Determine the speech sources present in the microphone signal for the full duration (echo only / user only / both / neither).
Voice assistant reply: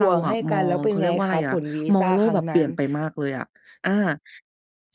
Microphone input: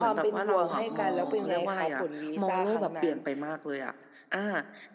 both